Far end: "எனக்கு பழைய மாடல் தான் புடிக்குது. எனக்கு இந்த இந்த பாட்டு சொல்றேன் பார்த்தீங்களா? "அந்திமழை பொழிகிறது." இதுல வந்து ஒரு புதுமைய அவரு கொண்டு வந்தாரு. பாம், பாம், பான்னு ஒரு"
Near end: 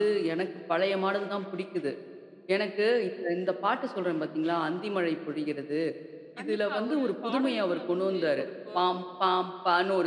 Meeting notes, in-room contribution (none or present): present